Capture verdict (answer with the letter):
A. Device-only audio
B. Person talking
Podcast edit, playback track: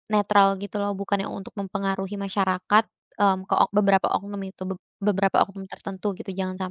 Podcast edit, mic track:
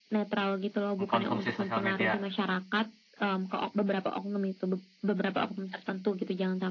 B